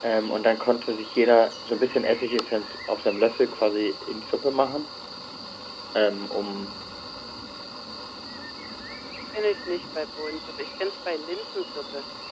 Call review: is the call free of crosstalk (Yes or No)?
Yes